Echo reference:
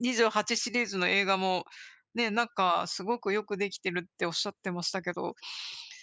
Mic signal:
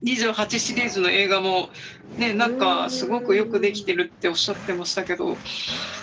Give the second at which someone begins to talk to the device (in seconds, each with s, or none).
2.3 s